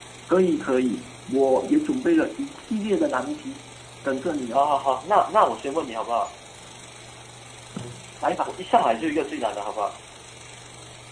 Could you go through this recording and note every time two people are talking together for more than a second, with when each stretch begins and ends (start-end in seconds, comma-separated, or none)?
none